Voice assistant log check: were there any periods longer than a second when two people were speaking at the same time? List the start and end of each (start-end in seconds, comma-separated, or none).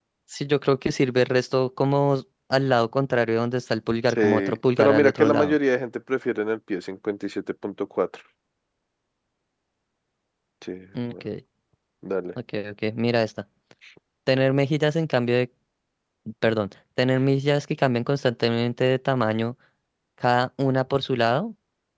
4.1-5.6